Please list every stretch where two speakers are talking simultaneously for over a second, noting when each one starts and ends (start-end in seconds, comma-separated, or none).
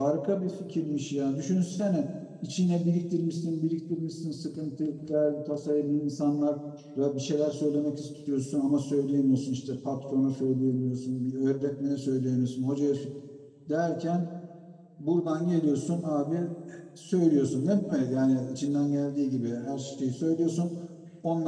none